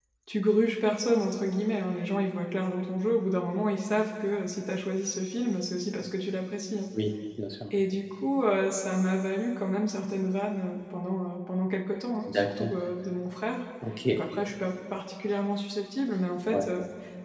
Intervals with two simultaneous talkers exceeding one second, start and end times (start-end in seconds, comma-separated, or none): none